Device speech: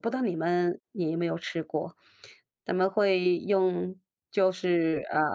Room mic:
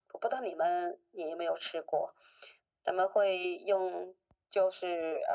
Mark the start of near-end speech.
none

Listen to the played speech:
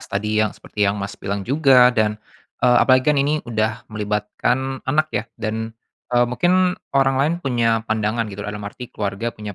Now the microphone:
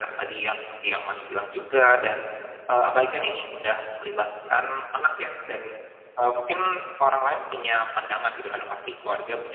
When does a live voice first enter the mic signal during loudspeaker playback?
none

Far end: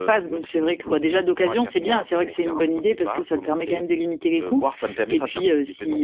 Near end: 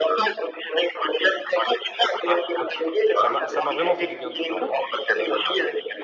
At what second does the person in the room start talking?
2.3 s

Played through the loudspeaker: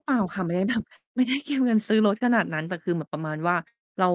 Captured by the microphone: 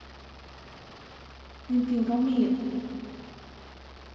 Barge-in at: 1.7 s

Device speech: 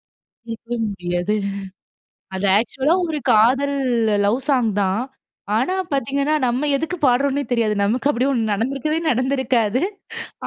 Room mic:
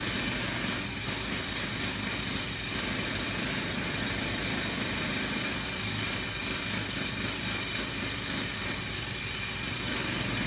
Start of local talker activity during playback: none

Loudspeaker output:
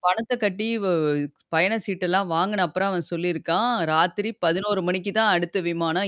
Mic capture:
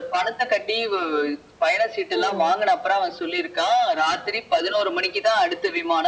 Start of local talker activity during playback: 2.2 s

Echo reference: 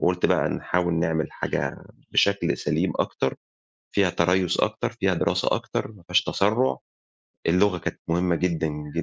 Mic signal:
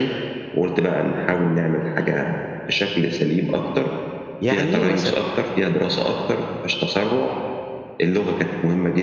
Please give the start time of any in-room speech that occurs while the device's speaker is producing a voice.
4.4 s

